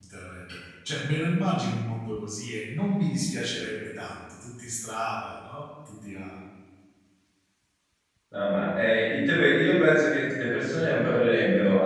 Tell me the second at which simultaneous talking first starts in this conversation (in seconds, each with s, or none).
none